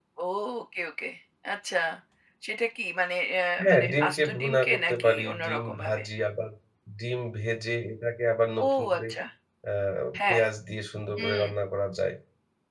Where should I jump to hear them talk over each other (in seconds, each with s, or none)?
3.6 s